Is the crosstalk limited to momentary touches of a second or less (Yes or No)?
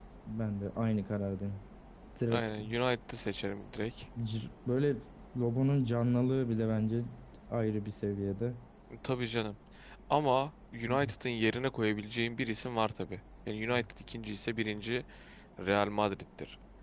Yes